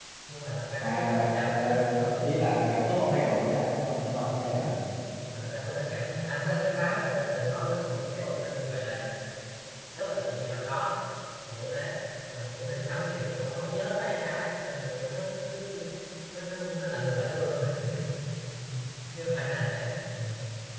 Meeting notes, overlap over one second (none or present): present